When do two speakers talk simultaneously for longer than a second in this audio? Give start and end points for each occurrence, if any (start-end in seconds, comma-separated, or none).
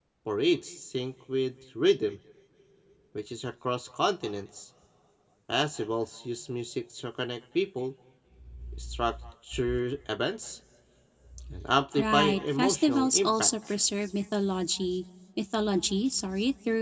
12.0-13.5